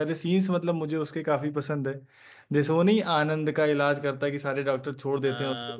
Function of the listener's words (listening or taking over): taking over